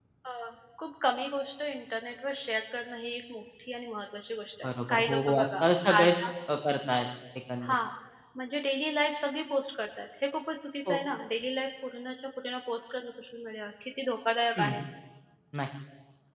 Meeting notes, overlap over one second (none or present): present